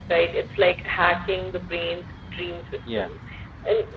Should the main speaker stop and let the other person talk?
No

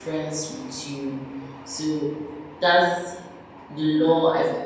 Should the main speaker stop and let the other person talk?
Yes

